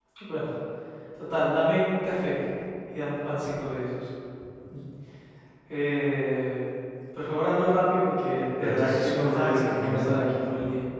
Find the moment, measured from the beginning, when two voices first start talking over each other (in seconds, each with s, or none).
8.6 s